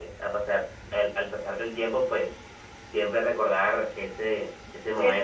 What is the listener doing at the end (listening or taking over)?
taking over